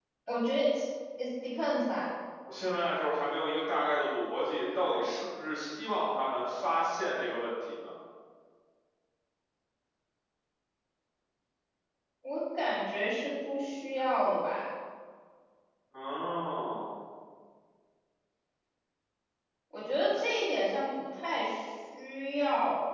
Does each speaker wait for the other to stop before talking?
Yes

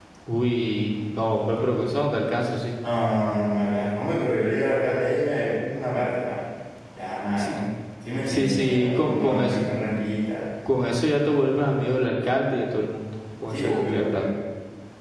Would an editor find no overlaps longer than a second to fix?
No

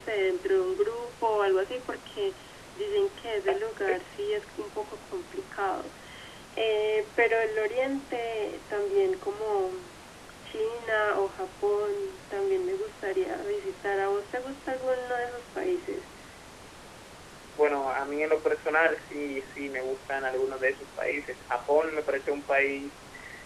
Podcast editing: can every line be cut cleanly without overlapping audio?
Yes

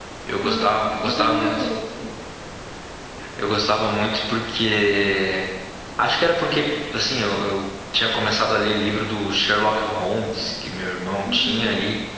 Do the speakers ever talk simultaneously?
Yes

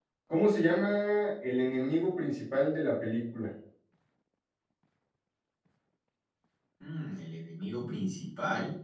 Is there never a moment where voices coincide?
Yes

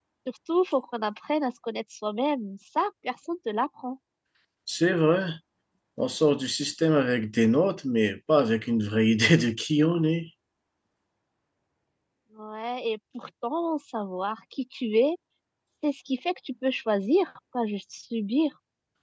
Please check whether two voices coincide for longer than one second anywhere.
No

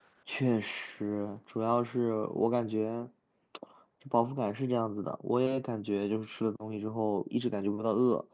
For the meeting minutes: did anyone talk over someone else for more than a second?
No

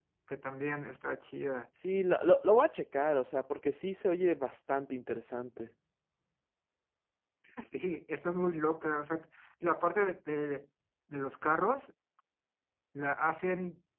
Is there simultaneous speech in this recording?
No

